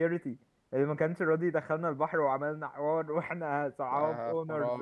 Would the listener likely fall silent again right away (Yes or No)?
No